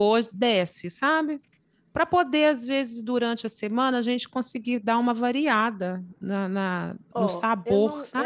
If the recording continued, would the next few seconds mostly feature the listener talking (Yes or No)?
Yes